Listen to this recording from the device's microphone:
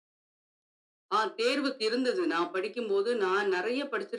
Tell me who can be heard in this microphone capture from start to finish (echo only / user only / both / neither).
echo only